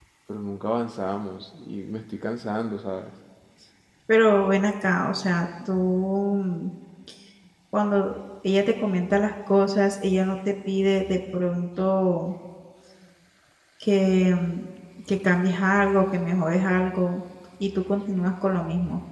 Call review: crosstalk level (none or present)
none